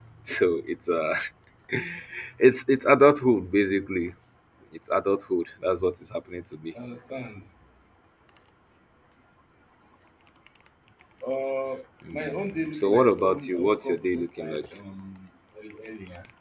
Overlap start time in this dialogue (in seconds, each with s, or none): 12.1 s